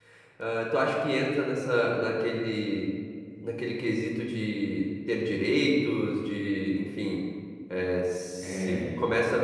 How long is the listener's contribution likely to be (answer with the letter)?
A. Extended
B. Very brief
B